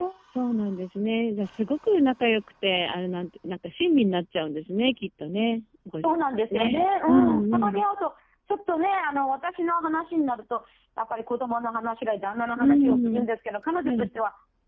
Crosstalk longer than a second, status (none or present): present